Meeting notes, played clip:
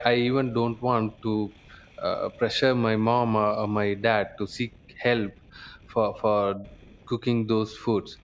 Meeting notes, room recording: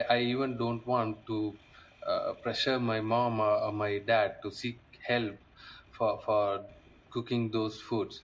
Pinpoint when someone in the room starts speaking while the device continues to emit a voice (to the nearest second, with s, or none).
none